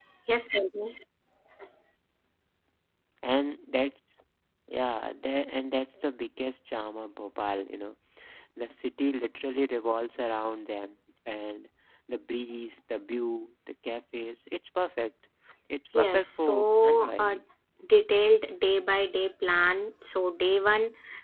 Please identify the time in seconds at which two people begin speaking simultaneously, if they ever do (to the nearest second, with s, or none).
16 s